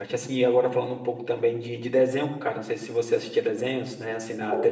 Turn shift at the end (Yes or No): No